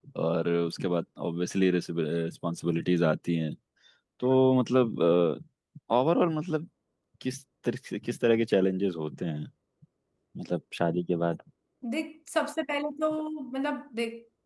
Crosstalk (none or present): none